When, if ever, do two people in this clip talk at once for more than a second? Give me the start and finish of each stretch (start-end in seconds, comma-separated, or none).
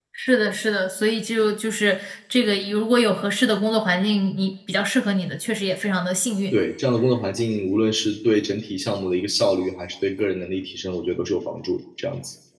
none